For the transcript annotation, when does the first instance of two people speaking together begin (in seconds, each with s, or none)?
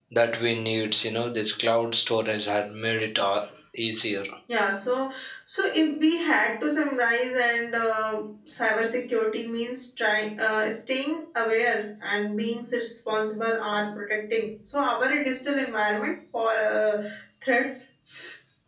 none